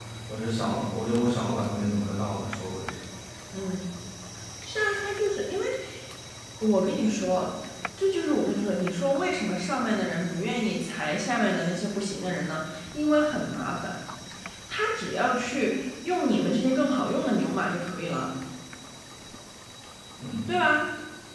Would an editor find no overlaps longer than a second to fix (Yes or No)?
Yes